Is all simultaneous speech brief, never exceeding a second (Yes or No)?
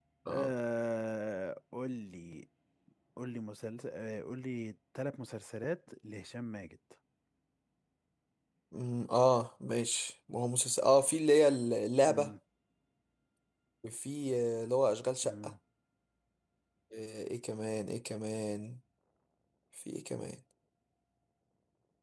Yes